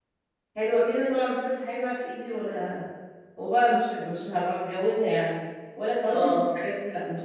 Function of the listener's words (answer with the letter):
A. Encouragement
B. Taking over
A